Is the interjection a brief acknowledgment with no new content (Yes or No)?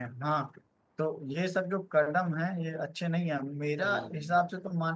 Yes